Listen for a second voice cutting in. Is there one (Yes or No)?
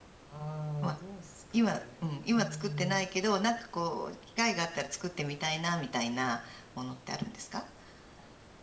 Yes